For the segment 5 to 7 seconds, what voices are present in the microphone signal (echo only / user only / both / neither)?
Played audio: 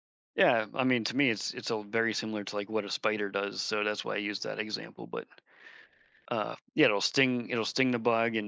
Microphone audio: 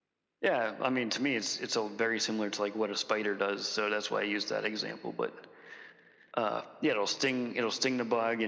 echo only